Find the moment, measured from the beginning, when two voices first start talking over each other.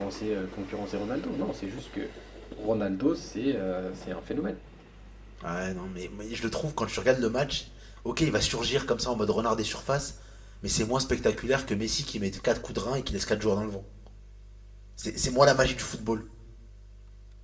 none

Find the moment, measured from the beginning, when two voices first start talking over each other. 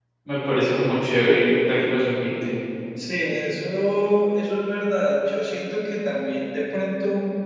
none

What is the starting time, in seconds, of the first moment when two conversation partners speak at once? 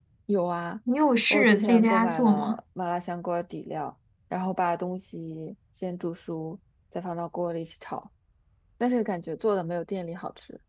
1.3 s

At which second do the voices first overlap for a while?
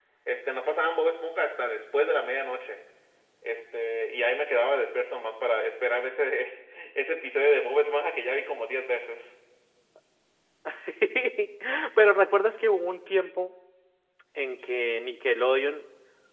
none

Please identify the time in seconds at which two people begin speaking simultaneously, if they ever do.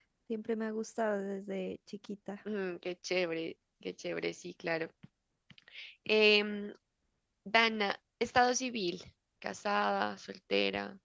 none

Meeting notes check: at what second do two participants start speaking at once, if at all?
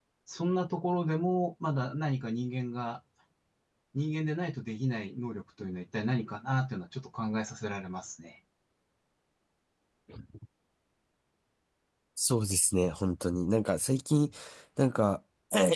none

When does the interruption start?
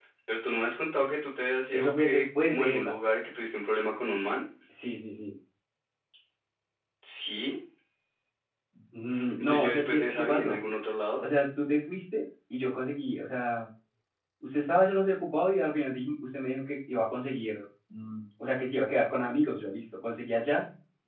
1.7 s

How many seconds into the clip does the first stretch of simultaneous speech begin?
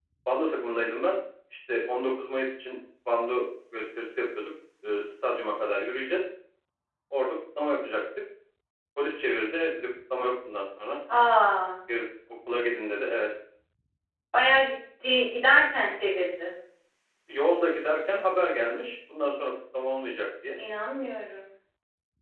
none

